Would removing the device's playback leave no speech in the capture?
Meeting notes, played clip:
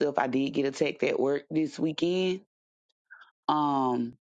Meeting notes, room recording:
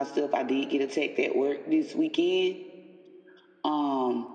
Yes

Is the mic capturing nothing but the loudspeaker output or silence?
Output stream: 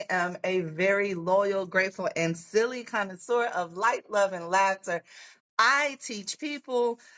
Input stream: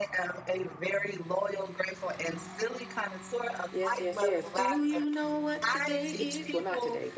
No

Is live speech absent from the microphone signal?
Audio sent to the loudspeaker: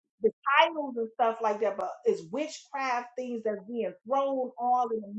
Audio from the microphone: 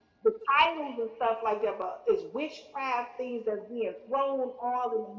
Yes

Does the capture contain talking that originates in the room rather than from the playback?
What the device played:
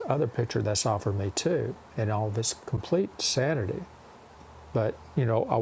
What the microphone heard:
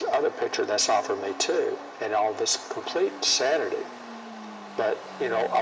No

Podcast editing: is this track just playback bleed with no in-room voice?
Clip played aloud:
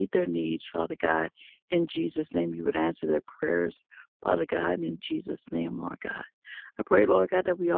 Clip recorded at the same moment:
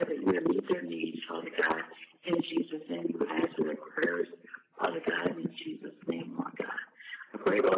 Yes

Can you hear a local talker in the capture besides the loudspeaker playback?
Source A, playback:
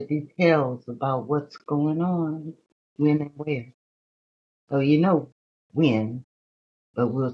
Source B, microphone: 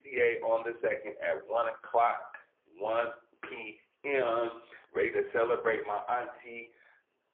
Yes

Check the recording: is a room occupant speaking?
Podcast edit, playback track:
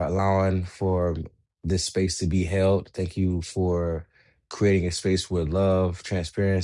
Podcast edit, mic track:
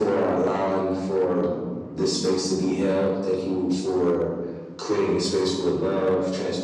No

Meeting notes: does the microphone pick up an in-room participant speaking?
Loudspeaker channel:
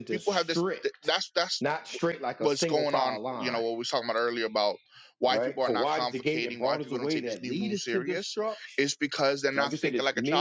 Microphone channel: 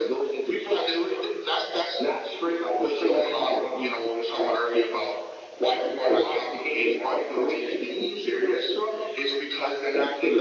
No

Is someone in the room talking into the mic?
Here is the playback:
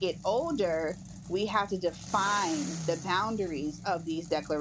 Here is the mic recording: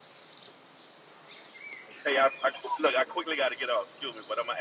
Yes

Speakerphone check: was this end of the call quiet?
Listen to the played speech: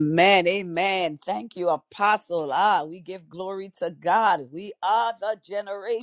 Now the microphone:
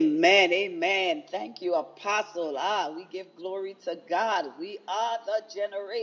Yes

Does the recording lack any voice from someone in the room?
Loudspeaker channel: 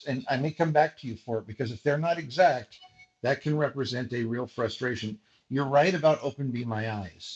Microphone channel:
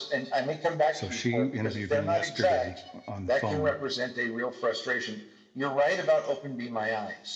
No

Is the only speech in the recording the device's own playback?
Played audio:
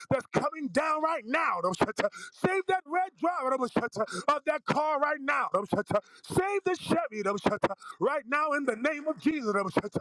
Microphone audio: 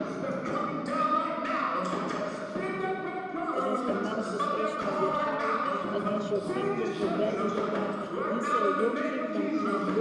No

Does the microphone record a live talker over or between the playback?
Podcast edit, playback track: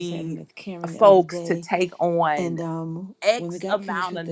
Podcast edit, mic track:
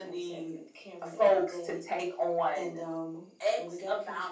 No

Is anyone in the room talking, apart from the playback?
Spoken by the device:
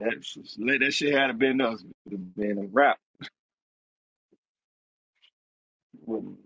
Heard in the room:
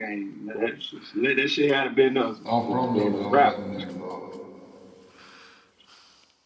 Yes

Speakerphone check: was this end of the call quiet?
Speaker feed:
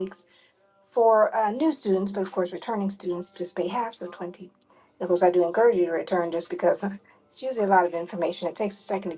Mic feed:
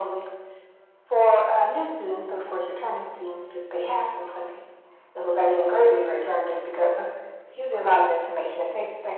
Yes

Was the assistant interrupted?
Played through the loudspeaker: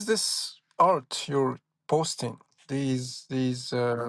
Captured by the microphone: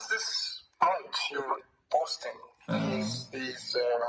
Yes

